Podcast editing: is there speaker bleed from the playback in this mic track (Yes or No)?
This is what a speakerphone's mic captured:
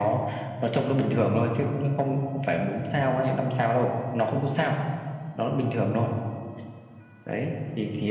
Yes